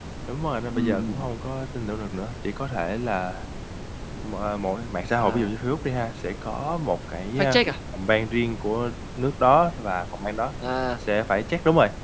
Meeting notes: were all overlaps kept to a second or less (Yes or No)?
Yes